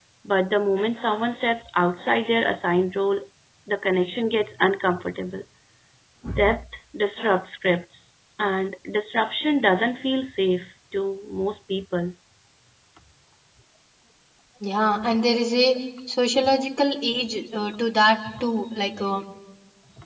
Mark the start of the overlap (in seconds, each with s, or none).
none